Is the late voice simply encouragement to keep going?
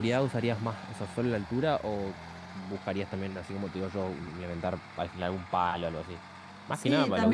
No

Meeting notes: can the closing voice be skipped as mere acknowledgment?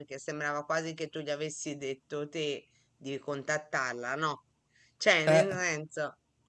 Yes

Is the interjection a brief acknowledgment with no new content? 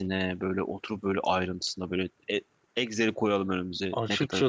No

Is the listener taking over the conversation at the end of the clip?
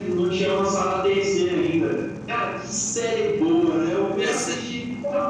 No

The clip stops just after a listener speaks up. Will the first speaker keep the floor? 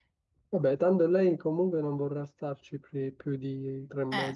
No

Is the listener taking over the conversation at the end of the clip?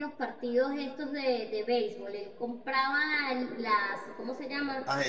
No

